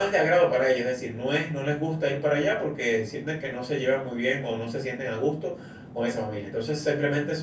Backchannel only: Yes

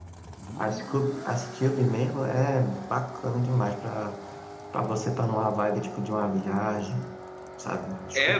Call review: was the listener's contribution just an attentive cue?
No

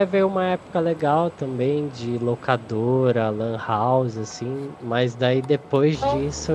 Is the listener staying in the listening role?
Yes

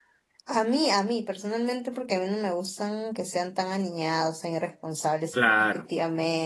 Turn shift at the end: No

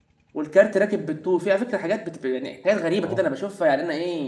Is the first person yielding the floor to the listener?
No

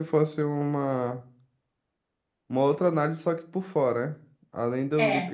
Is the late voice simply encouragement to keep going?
Yes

